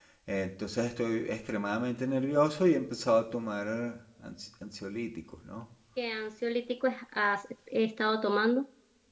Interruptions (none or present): none